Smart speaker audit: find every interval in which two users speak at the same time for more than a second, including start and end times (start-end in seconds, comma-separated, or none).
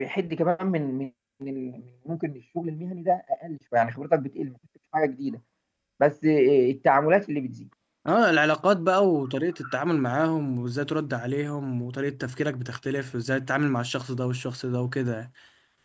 none